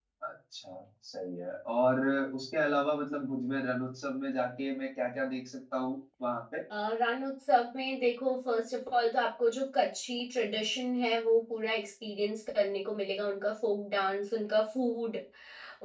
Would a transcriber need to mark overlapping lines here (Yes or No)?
No